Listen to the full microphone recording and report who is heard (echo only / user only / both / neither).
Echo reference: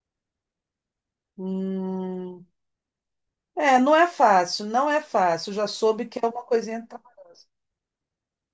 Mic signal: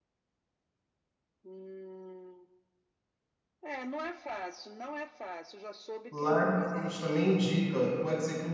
both